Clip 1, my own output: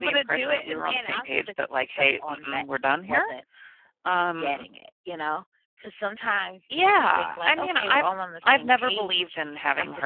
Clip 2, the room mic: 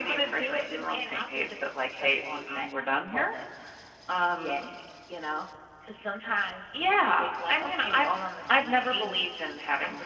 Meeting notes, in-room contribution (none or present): none